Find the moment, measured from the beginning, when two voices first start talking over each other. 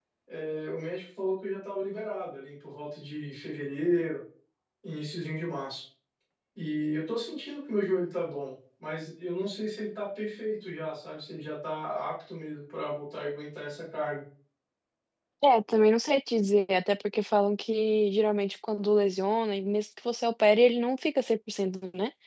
none

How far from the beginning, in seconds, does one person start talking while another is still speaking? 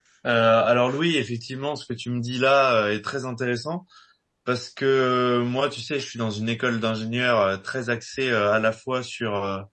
none

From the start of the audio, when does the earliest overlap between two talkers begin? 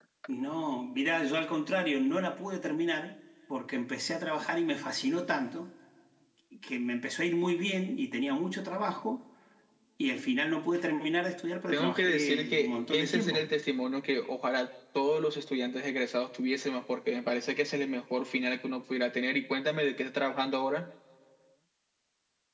12 s

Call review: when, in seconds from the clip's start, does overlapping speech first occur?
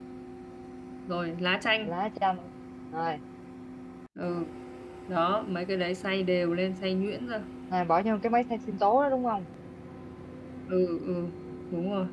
none

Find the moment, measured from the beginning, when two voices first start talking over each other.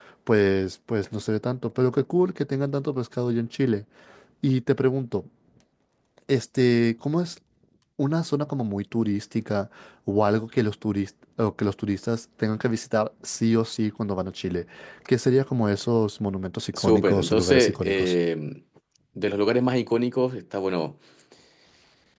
17 s

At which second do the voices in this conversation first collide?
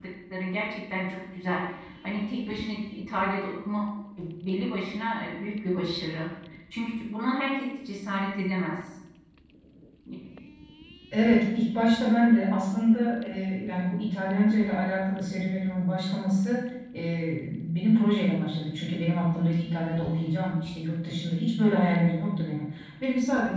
none

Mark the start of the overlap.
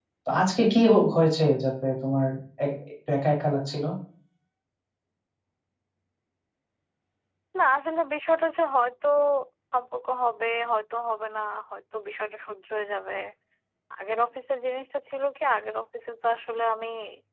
none

